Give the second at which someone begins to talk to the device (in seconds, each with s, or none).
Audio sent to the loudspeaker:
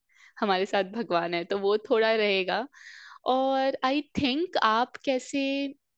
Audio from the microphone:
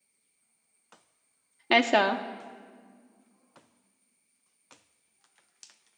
1.7 s